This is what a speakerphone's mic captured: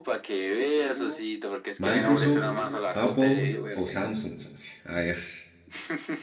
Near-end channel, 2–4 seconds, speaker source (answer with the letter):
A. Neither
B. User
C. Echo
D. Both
D